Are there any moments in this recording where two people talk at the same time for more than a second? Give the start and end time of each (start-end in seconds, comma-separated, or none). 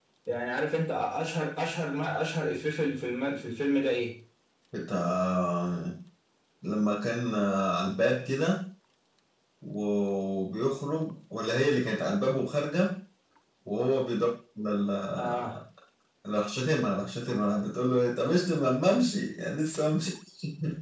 none